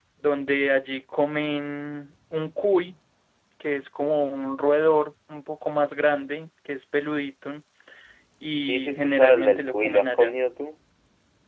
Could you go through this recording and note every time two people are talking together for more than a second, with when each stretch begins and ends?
8.7-10.3

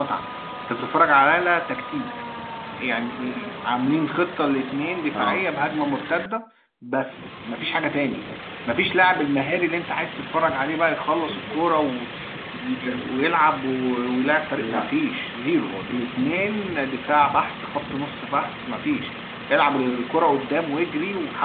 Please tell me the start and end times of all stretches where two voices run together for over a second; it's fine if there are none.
none

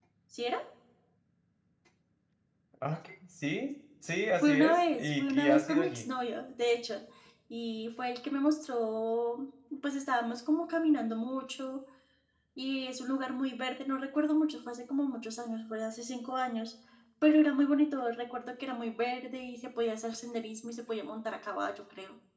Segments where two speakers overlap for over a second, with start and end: 4.4-6.1

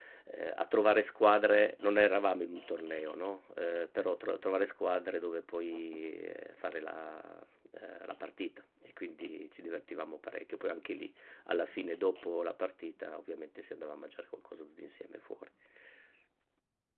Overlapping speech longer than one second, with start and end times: none

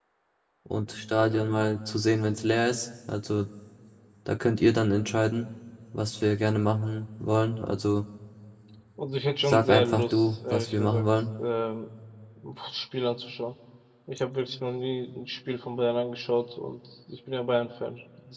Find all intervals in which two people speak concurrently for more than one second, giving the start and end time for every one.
9.4-11.0

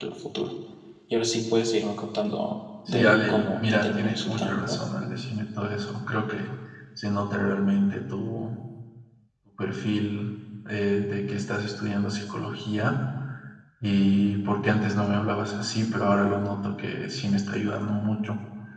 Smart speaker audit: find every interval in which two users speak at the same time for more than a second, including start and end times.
2.9-4.8

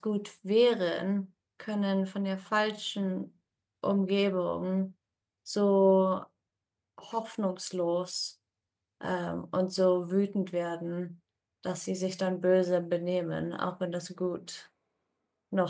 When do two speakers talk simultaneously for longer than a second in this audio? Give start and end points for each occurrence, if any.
none

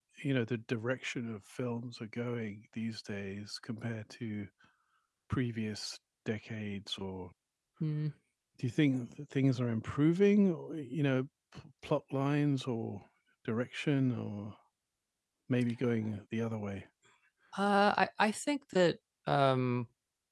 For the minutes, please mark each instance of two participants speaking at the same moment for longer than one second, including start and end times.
none

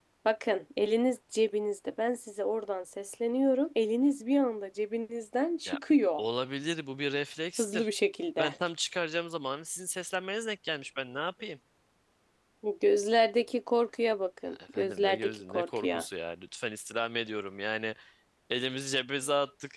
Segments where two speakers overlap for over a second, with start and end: 14.7-16.0

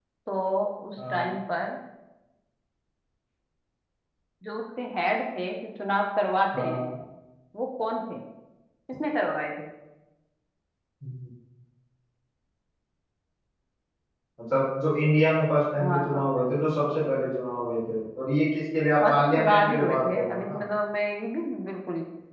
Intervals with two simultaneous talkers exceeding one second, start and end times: 19.1-20.6

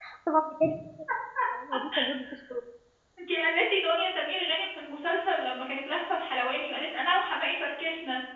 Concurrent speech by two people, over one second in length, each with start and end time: none

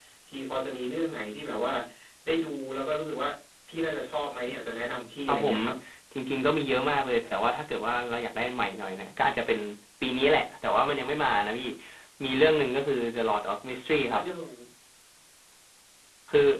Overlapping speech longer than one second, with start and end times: none

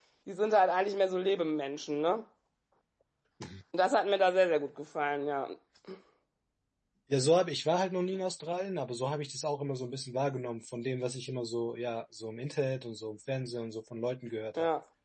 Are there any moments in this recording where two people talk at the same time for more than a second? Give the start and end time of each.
none

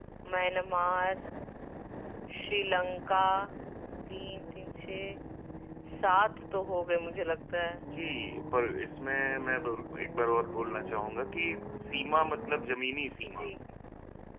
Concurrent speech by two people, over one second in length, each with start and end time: none

